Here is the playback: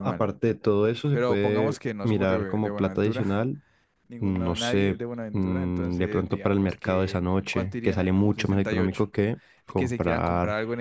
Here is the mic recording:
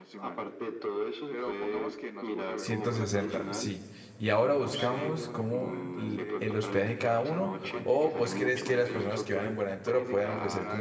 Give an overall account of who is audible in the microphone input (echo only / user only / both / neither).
both